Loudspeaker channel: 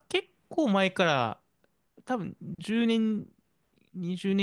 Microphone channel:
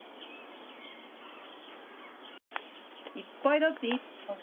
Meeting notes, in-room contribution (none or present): present